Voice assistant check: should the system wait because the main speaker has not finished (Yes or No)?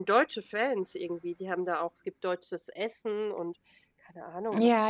No